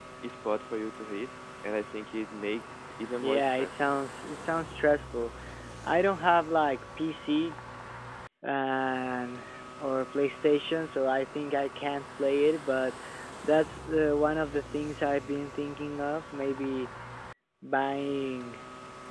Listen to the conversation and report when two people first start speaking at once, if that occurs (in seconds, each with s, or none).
3.2 s